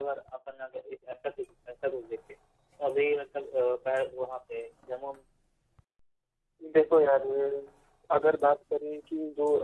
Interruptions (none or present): none